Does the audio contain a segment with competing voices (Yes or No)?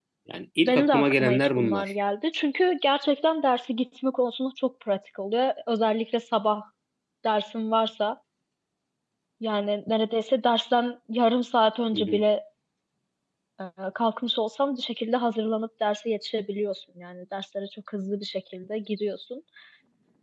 Yes